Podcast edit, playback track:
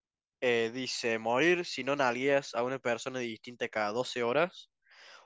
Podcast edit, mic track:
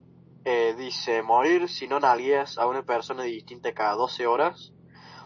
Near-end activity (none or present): none